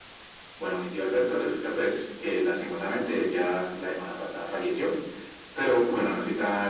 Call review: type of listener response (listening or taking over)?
listening